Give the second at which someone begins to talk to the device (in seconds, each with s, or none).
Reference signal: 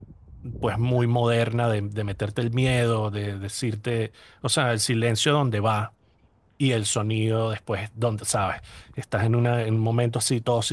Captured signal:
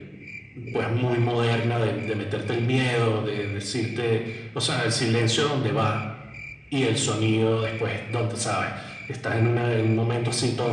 none